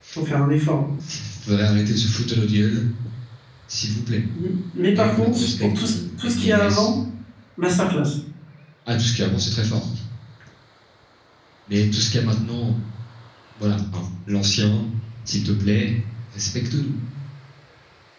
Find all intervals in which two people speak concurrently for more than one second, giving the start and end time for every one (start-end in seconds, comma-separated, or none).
4.9-6.9